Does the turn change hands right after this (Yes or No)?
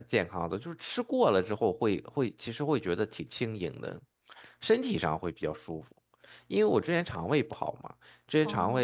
No